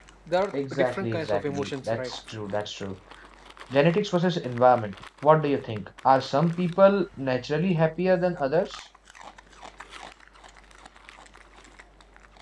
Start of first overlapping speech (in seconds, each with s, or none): 0.5 s